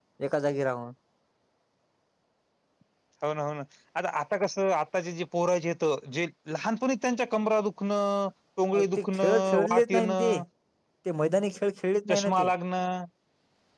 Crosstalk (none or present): present